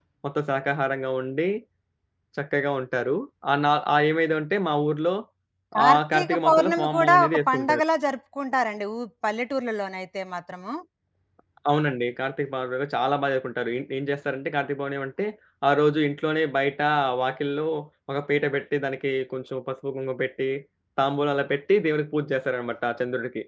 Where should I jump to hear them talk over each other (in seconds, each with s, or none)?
5.8 s